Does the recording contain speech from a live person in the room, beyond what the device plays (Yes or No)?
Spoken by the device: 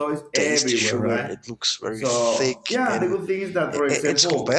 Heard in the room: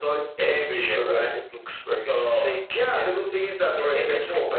No